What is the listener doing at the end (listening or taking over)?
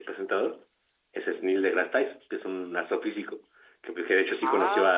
listening